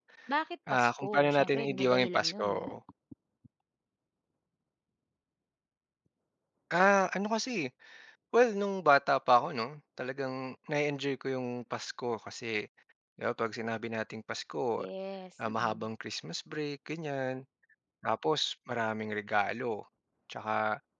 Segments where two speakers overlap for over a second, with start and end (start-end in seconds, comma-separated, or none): 0.7-2.6